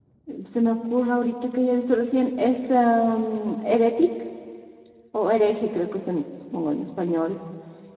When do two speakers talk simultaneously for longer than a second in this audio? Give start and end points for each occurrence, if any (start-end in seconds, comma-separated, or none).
none